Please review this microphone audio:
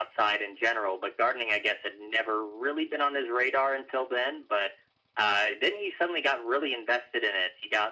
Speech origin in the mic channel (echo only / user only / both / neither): echo only